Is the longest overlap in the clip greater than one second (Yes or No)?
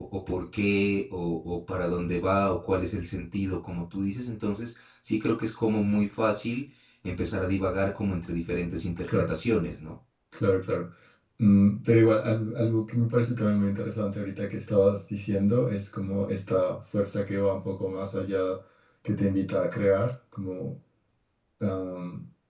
No